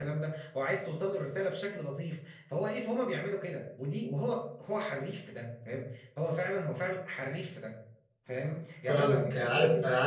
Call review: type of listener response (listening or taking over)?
taking over